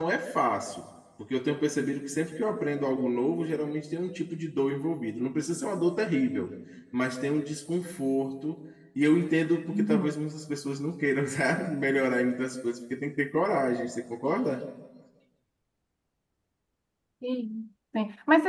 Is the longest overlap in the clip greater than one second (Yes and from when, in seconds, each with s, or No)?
No